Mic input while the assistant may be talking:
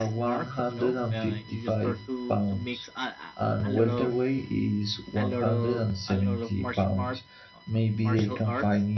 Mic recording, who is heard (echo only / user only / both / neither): both